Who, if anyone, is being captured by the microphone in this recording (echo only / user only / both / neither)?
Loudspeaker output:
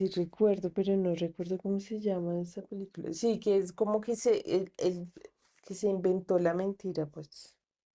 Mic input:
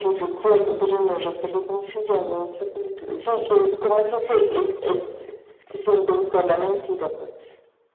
echo only